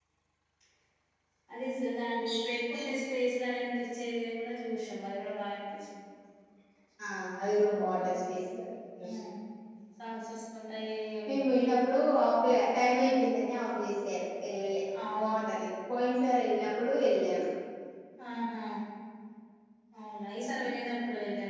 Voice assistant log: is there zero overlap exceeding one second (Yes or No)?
Yes